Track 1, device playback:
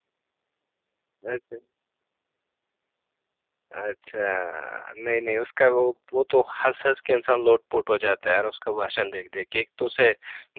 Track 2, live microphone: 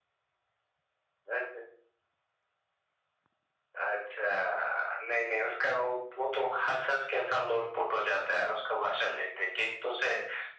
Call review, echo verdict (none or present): present